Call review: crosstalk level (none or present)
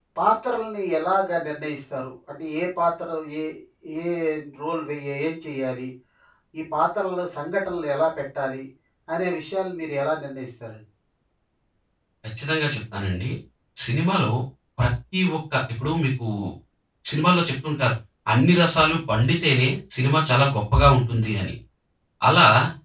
none